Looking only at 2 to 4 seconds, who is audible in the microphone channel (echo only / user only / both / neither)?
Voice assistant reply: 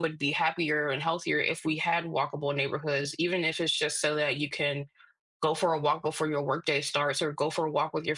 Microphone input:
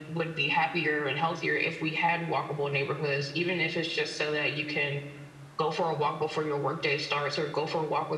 echo only